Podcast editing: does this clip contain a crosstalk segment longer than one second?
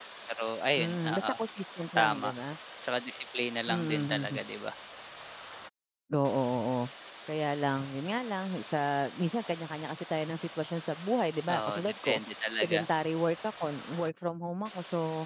Yes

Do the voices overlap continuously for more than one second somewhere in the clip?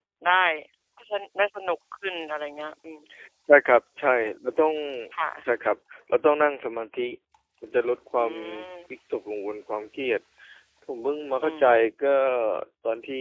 No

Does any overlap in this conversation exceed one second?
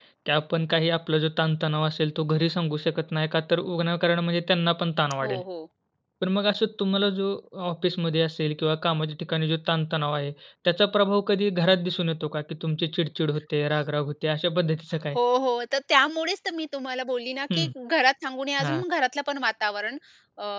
No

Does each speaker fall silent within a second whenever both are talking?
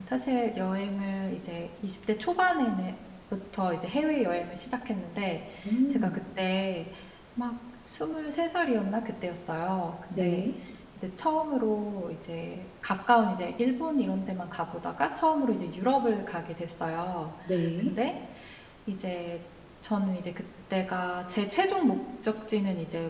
Yes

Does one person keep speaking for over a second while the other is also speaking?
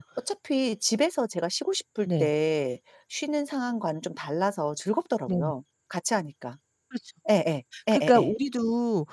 No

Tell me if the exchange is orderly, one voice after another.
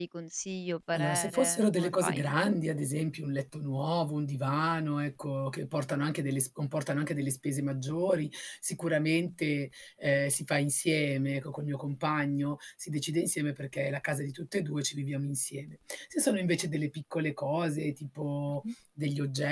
No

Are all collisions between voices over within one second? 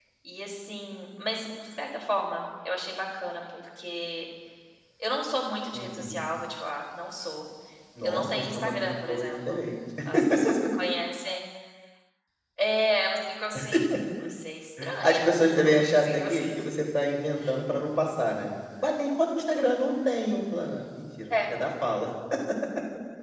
No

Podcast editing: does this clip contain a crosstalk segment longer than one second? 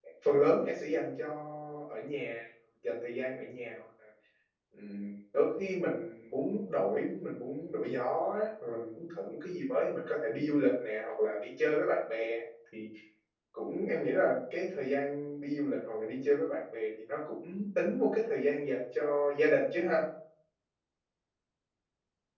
No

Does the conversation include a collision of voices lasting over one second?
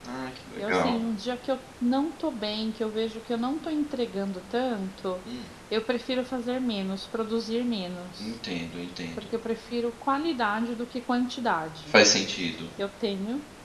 No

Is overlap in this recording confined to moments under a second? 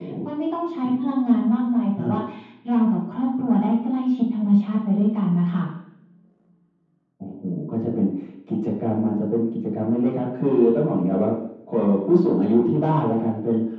Yes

